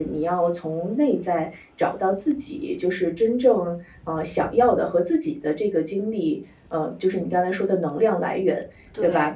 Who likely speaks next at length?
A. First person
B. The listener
A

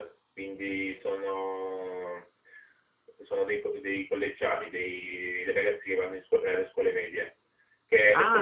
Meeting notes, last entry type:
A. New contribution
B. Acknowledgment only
A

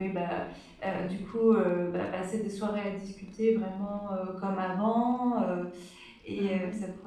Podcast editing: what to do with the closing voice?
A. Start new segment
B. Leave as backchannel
B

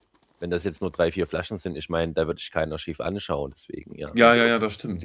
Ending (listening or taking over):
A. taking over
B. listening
A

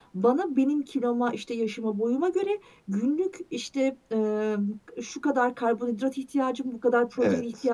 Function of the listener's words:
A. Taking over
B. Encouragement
B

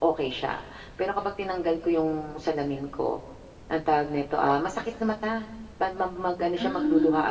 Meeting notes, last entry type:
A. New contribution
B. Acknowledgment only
B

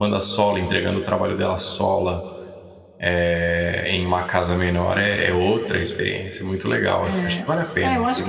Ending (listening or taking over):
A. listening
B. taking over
B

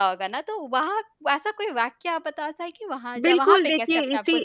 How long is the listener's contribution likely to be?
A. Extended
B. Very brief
A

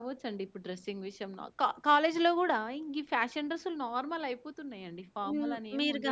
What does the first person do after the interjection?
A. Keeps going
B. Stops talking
B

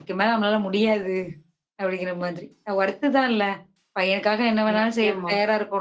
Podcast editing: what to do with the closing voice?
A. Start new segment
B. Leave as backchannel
B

